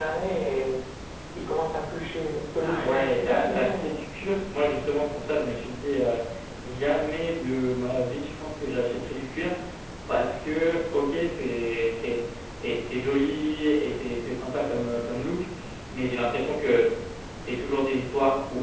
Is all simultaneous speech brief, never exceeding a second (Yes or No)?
No